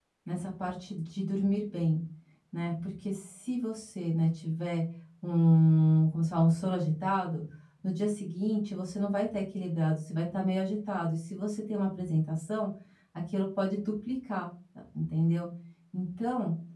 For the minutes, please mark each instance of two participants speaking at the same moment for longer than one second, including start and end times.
none

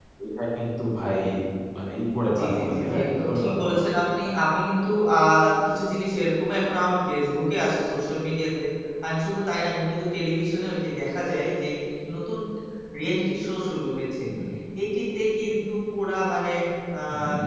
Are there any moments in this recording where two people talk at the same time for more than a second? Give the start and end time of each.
2.4-3.8

